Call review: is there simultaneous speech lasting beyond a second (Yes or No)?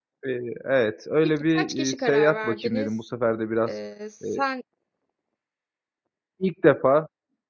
Yes